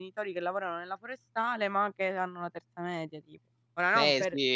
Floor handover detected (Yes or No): Yes